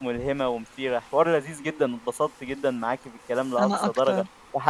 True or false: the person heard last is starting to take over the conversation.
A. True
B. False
B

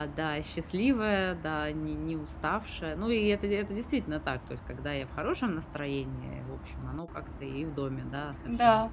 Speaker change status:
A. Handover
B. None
B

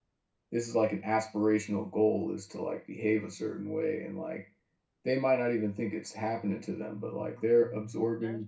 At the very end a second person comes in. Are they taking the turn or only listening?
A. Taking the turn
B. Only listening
A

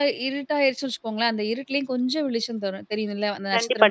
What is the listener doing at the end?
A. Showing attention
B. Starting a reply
B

